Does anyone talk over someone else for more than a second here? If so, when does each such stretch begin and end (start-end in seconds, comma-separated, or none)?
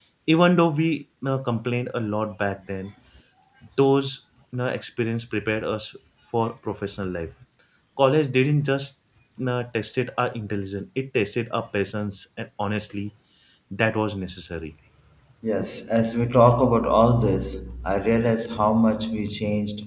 none